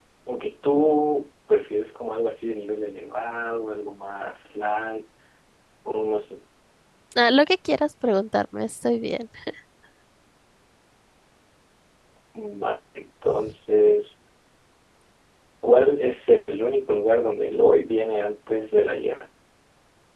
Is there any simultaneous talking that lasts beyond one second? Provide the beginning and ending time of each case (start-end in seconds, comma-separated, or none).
none